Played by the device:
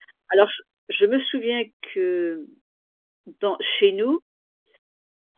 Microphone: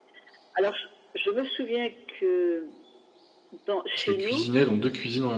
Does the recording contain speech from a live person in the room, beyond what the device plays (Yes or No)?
Yes